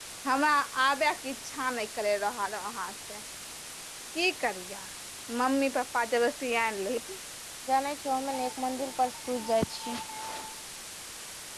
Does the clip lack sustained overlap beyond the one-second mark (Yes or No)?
Yes